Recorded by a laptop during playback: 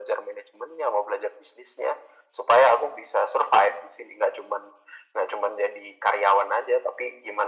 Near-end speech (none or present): none